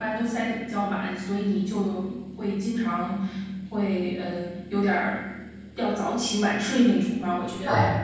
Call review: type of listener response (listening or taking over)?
taking over